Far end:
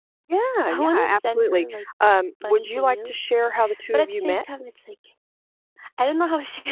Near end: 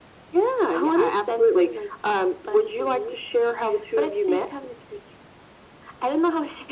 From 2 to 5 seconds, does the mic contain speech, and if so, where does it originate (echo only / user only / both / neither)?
echo only